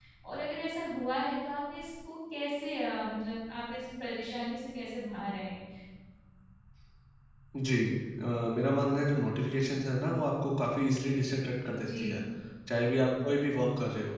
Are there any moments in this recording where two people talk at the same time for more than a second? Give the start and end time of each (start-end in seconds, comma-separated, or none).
none